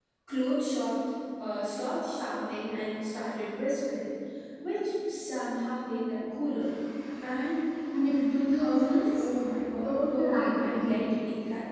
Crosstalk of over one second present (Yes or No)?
Yes